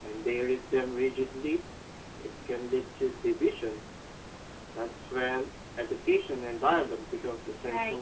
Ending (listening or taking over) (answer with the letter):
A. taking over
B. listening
A